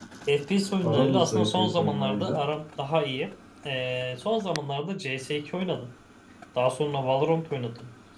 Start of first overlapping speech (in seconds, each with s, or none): 0.8 s